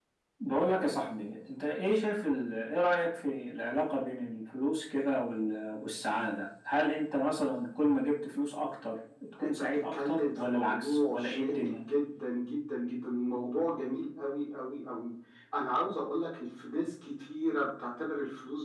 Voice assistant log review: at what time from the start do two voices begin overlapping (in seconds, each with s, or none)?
9.4 s